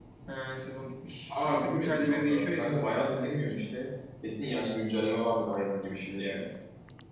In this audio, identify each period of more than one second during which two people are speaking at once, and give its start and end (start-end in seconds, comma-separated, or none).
1.3-3.6